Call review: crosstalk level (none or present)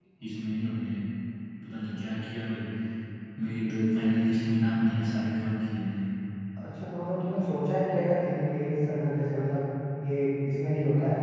none